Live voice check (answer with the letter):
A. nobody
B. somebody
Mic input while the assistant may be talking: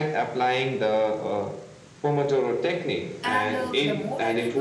B